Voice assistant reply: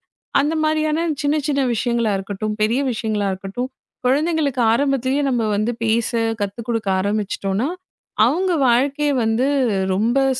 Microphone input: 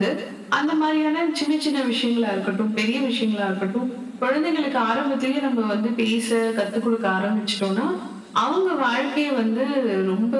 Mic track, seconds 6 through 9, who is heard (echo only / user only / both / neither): echo only